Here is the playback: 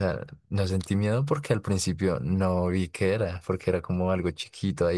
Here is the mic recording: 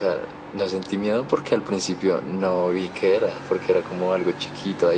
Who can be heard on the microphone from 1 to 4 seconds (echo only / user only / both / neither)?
echo only